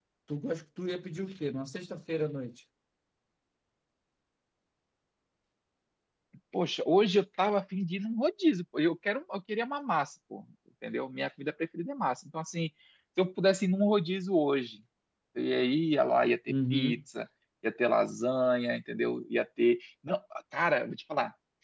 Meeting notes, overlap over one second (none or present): none